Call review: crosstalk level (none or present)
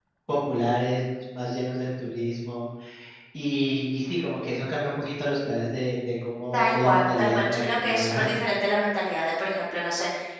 present